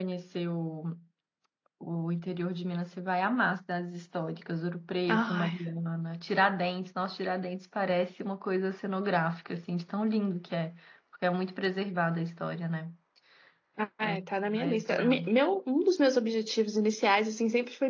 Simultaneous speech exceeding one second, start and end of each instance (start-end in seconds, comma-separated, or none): 14.0-15.2